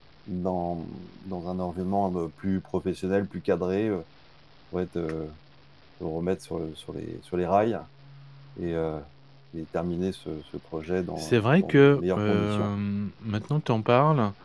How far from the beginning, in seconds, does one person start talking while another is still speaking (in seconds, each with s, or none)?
11.2 s